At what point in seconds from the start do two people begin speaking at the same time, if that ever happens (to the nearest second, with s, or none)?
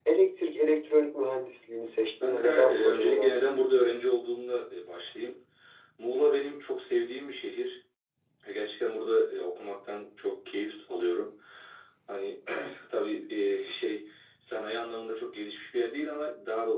2 s